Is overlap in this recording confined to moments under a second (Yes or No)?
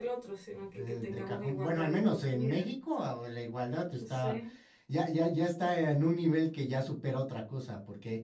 No